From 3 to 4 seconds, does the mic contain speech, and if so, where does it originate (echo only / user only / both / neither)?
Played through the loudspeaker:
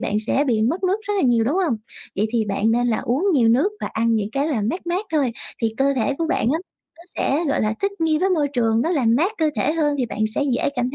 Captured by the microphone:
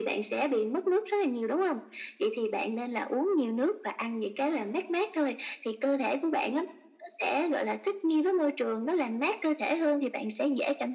echo only